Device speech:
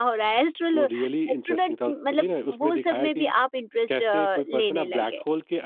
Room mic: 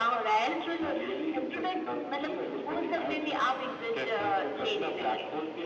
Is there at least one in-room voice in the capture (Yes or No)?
No